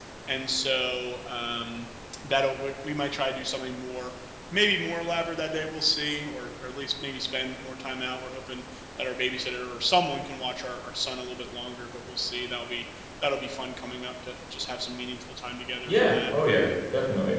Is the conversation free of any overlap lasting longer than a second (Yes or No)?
Yes